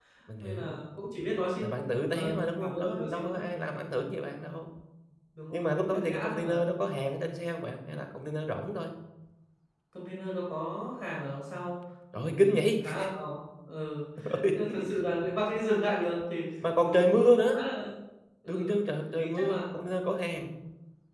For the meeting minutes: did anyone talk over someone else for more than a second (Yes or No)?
Yes